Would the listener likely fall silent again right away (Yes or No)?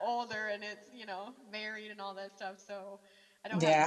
No